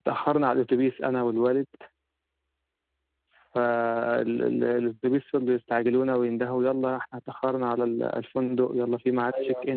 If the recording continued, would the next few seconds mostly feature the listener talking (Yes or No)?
No